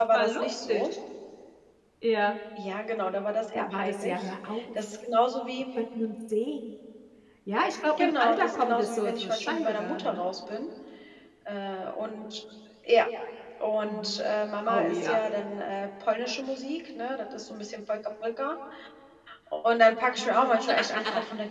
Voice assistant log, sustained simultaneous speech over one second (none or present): present